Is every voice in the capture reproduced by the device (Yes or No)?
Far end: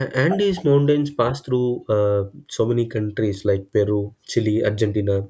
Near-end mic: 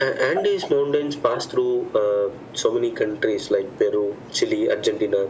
Yes